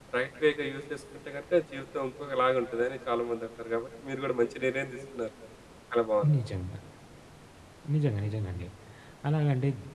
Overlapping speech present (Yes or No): No